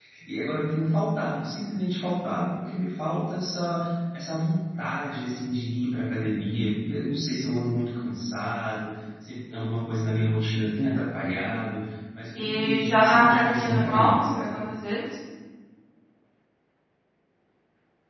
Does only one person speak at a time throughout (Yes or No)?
No